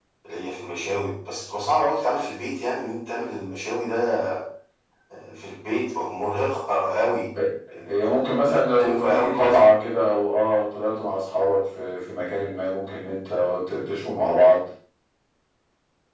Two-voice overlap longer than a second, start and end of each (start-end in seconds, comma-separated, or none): 7.8-9.6